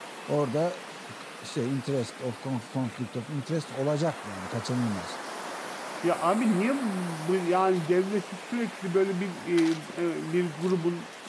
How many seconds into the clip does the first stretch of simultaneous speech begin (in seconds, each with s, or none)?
none